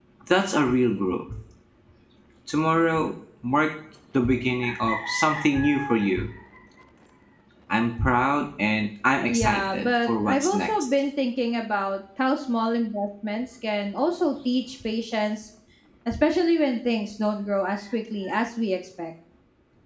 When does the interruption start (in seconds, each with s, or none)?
9.1 s